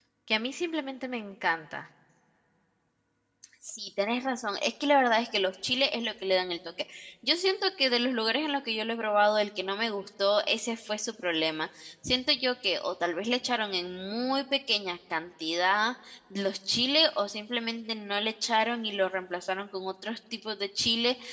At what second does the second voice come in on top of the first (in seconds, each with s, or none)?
none